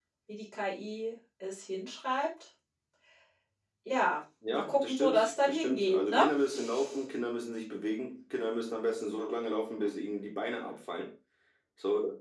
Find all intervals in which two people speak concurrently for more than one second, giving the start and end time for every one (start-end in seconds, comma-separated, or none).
4.5-6.2